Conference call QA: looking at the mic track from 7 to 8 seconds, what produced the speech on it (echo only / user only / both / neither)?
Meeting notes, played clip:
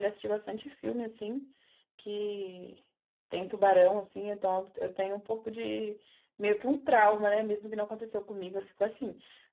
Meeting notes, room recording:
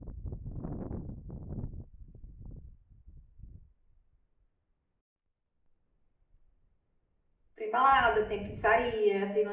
user only